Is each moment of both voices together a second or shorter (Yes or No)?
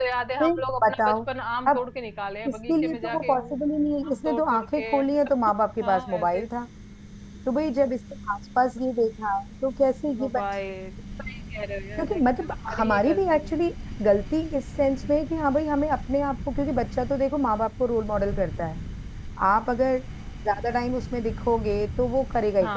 No